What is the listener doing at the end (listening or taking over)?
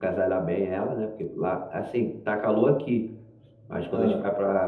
listening